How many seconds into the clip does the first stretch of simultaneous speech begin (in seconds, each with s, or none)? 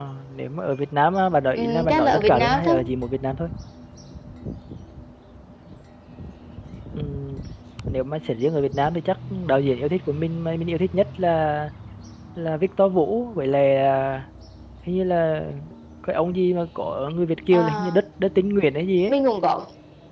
1.6 s